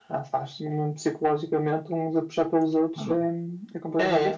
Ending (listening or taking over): taking over